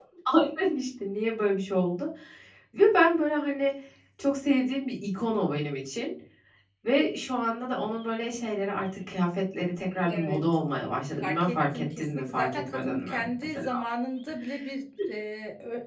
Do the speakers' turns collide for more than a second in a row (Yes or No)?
Yes